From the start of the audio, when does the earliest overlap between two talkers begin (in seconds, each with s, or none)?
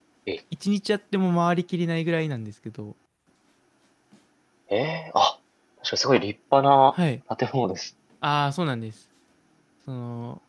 none